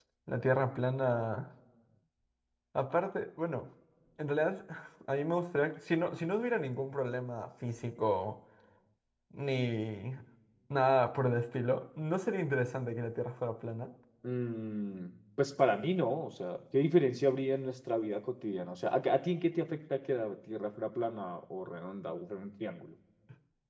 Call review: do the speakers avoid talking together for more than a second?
Yes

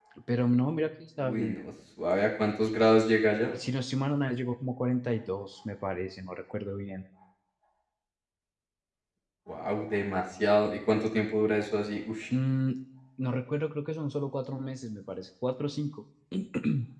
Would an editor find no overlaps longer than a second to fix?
Yes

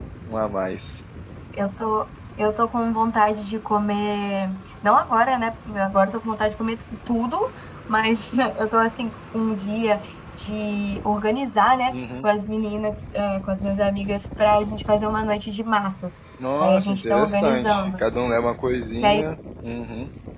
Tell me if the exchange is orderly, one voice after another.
No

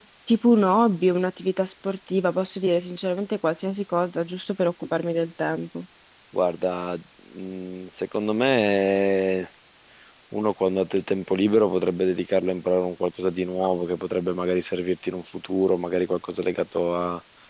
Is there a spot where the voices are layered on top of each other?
No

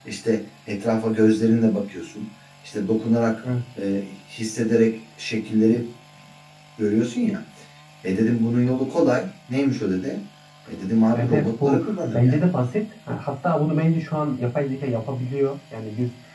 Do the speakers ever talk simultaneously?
Yes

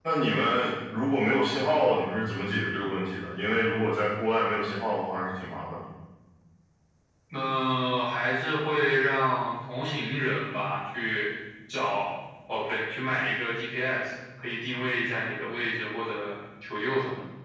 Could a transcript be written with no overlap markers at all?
Yes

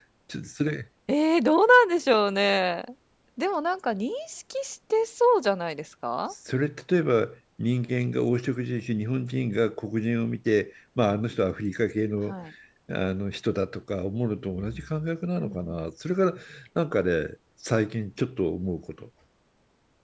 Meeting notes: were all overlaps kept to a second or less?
Yes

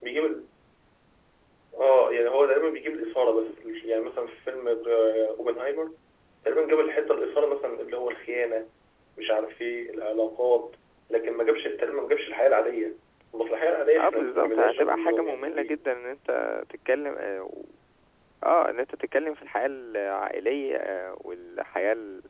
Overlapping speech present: Yes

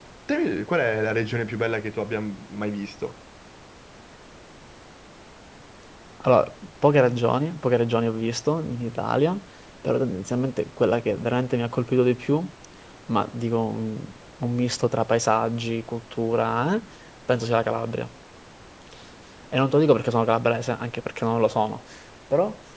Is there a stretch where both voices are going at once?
No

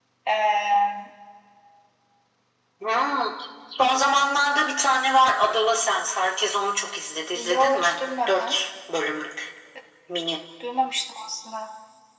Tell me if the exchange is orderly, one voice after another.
No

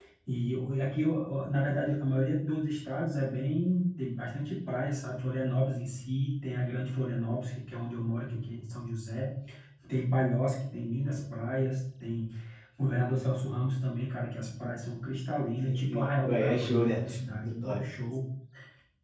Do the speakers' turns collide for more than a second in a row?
Yes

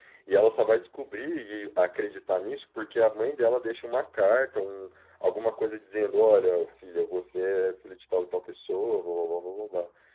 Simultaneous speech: No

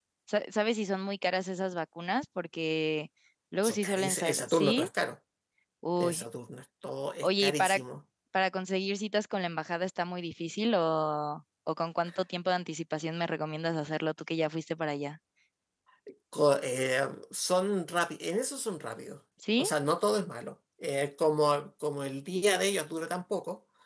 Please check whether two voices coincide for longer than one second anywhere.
Yes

